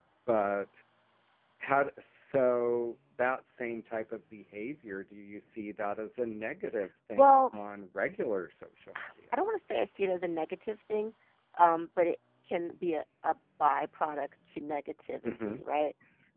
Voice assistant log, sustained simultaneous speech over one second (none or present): none